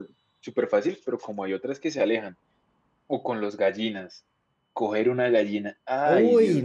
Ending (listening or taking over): taking over